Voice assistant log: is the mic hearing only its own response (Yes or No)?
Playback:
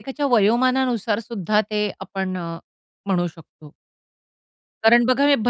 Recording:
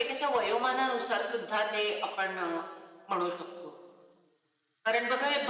Yes